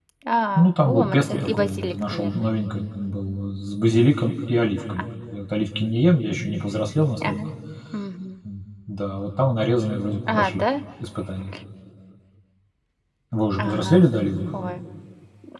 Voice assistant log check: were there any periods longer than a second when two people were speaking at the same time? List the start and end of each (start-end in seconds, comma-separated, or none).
0.6-2.5